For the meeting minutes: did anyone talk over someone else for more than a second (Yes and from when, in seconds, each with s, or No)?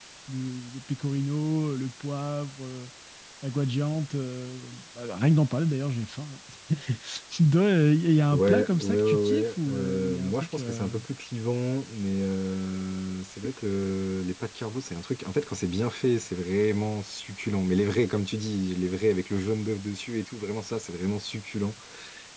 Yes, from 8.3 s